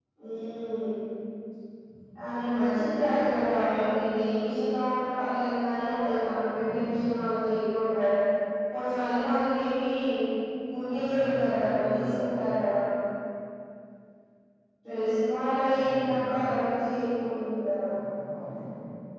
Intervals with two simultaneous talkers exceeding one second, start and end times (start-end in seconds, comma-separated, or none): 10.9-12.2